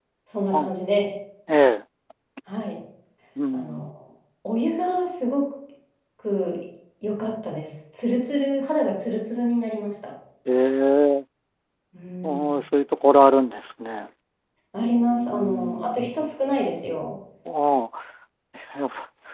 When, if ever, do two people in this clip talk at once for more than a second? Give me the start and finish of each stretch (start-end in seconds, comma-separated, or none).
14.8-16.2